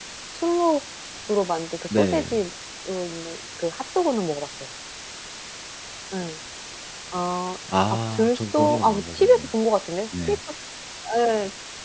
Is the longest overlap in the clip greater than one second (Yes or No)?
Yes